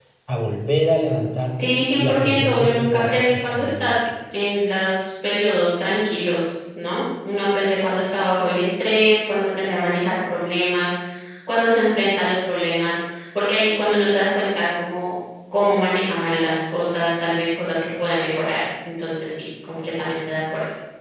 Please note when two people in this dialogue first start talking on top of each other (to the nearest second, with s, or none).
2 s